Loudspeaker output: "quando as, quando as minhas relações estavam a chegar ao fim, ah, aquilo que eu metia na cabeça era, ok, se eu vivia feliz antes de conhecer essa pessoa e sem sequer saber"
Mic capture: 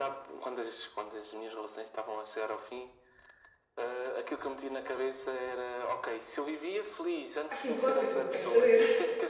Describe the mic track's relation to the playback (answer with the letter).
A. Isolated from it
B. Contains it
B